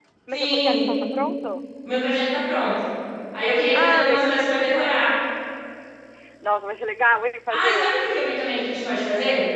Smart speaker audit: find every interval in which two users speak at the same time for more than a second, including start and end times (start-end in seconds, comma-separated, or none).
3.7-5.0